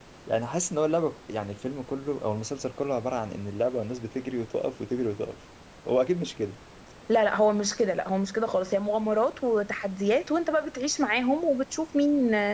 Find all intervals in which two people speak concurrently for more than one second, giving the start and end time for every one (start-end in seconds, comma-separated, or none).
none